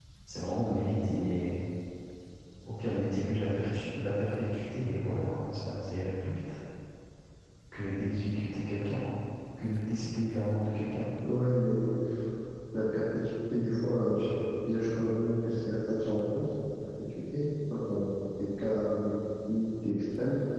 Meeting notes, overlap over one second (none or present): none